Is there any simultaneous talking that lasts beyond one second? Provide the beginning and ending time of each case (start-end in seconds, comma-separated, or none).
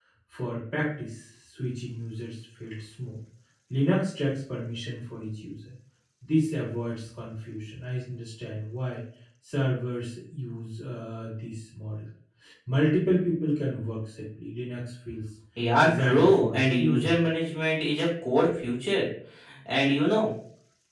15.8-17.2